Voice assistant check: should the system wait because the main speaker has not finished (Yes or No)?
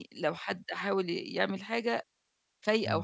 Yes